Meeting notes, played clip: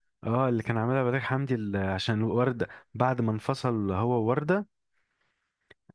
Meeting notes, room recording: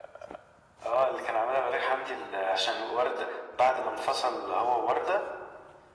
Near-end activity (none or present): none